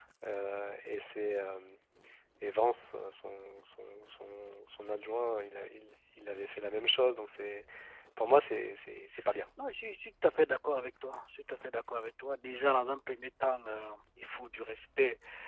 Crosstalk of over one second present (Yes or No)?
No